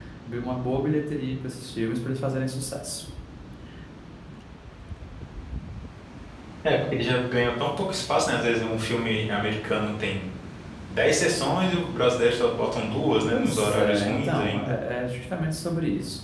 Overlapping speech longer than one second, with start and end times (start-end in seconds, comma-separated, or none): 13.3-14.8